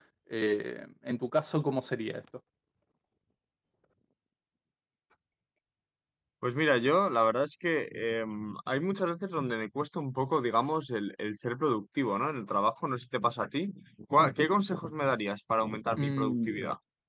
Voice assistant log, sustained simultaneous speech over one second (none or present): none